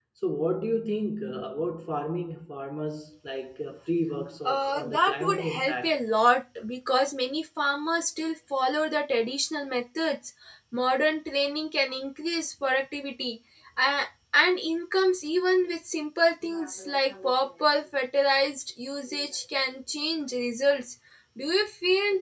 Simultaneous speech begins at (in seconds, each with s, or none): 4.5 s